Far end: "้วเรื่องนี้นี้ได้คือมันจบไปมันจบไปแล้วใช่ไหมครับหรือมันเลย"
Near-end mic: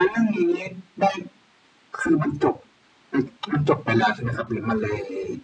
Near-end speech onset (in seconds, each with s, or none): none